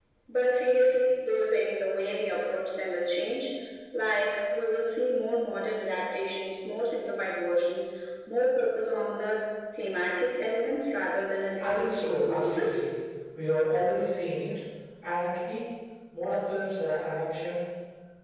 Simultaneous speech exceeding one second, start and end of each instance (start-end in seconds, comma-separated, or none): 11.6-12.8